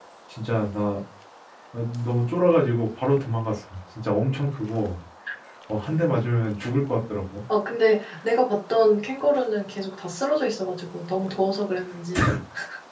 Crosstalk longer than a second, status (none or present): none